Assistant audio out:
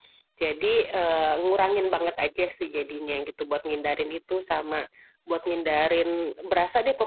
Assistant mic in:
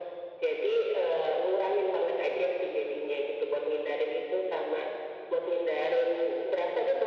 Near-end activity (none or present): none